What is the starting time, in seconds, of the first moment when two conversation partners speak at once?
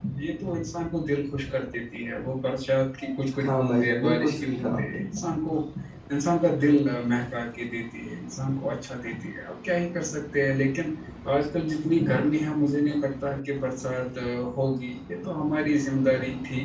3.3 s

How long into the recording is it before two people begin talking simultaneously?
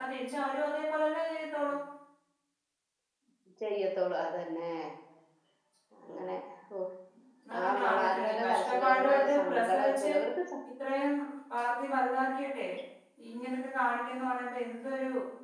7.6 s

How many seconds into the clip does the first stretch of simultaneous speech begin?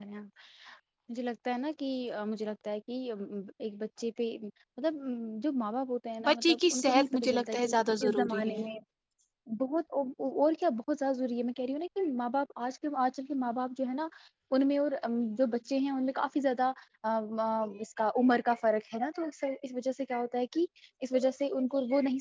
6.3 s

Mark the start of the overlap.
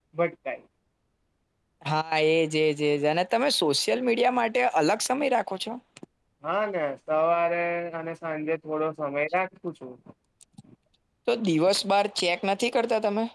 none

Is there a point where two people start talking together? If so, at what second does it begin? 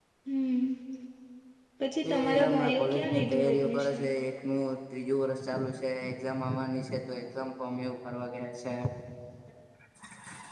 2.1 s

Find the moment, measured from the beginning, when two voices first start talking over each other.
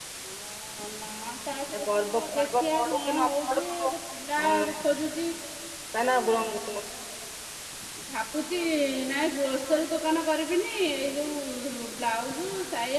1.7 s

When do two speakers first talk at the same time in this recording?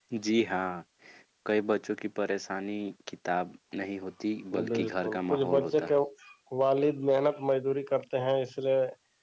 4.5 s

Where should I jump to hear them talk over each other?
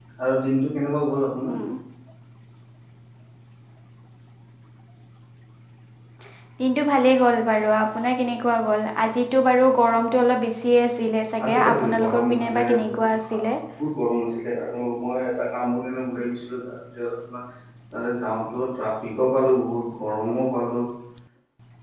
11.4 s

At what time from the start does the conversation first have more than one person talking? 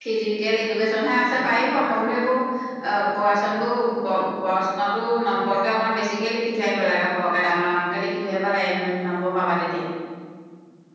none

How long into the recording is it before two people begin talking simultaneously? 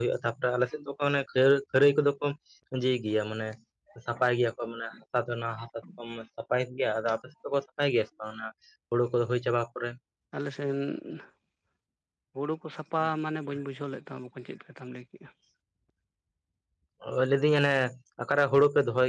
none

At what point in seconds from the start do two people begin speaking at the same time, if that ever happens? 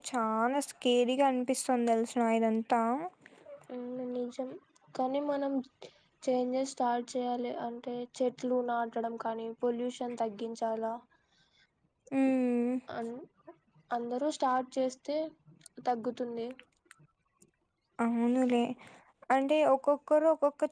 none

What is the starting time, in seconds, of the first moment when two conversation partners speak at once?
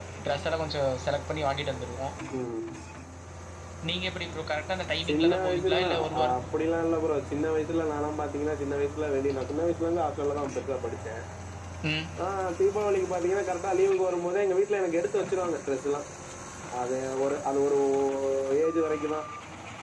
5.0 s

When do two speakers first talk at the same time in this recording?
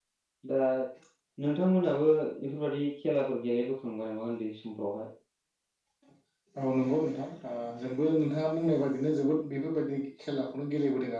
none

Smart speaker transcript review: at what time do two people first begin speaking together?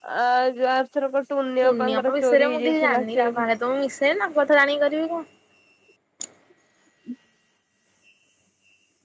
1.6 s

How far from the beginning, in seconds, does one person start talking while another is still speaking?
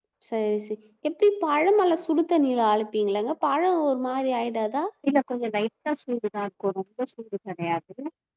none

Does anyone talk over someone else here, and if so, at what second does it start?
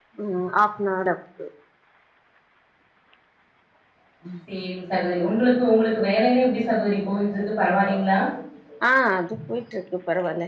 none

